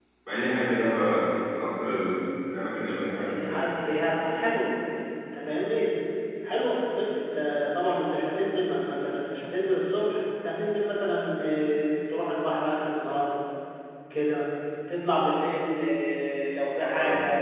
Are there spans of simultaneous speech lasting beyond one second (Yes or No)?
No